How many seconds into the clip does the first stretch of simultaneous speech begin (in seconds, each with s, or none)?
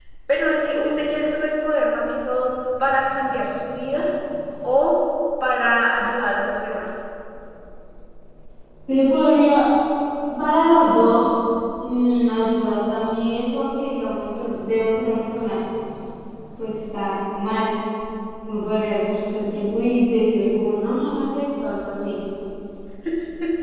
none